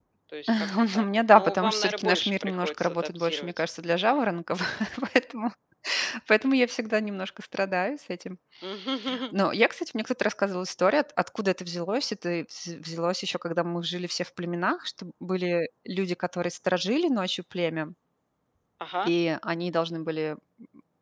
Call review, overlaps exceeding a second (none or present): present